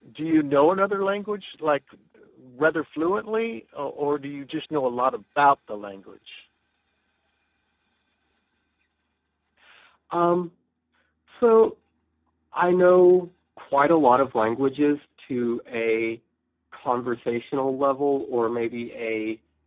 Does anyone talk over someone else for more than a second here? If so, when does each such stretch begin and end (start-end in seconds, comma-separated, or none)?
none